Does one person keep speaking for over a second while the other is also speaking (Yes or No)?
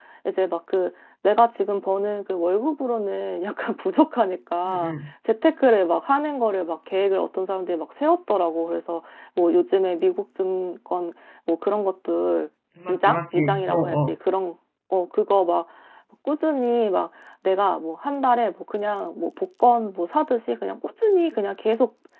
Yes